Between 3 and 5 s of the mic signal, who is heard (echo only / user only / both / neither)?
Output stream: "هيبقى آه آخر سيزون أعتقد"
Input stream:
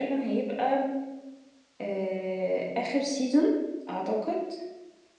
echo only